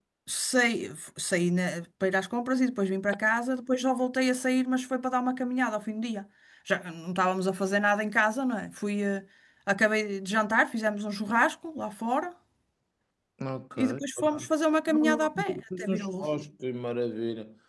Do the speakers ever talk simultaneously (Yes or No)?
Yes